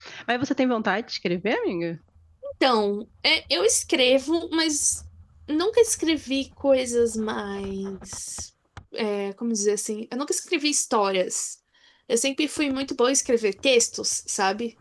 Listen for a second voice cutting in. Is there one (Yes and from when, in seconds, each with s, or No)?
No